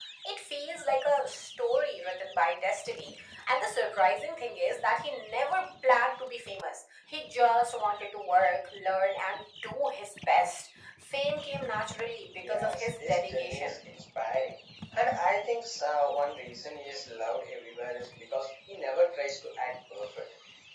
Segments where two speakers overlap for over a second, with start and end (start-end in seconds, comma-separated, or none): 12.4-13.8